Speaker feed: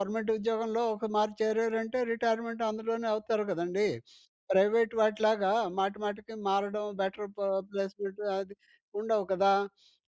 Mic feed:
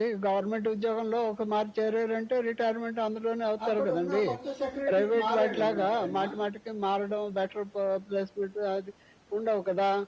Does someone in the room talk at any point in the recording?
Yes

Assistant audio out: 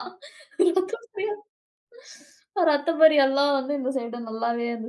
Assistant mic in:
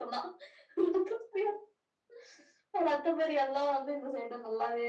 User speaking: No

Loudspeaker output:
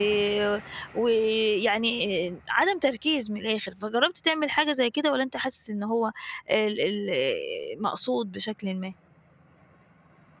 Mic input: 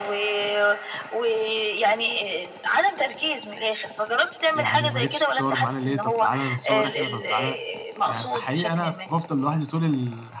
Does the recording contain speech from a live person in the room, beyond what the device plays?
Yes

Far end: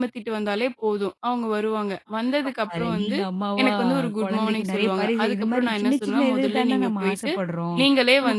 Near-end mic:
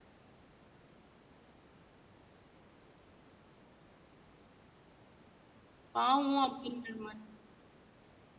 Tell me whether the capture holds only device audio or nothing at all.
No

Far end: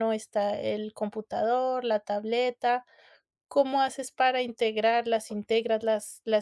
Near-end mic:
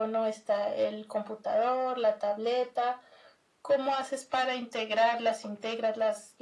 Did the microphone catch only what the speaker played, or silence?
Yes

